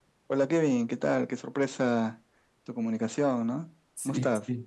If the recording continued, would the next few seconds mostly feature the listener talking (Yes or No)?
Yes